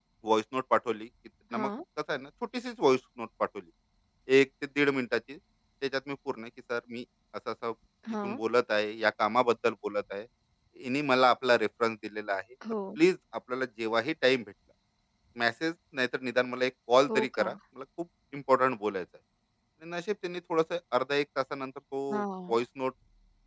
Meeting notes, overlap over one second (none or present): none